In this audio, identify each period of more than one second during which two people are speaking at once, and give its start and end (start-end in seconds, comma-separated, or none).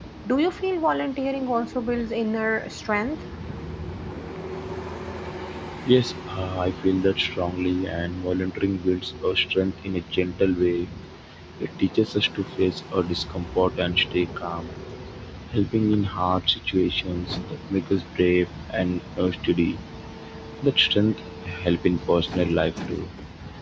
none